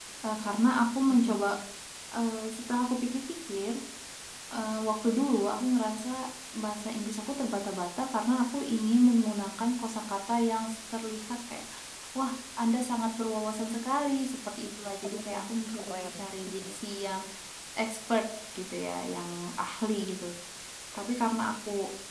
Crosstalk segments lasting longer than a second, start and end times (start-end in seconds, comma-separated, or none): 15.0-16.8